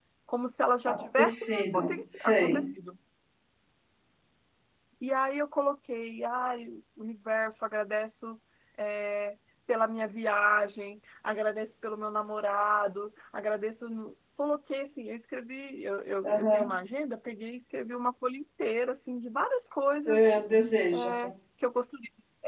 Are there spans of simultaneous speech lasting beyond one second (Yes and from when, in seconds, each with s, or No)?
Yes, from 0.8 s